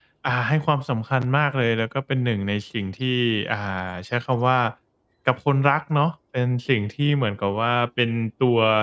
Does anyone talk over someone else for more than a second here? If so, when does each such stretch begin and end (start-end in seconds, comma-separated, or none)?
none